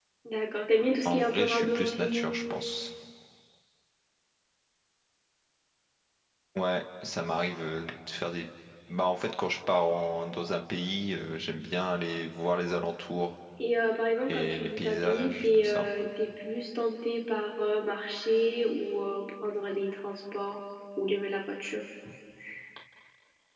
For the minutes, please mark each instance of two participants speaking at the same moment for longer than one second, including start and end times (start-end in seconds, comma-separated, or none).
1.1-2.3, 14.2-15.9